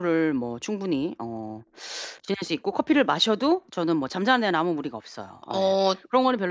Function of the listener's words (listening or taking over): listening